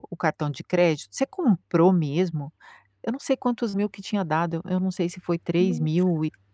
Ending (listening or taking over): listening